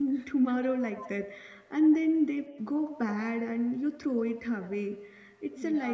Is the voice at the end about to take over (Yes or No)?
No